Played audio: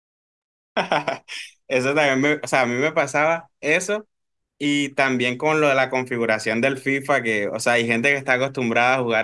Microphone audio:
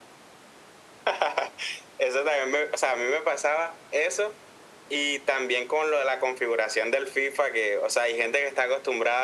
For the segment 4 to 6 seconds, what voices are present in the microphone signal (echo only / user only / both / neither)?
echo only